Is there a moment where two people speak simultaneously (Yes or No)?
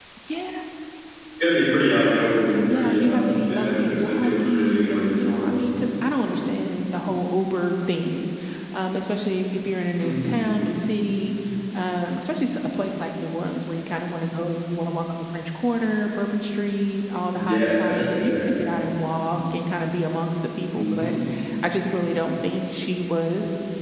Yes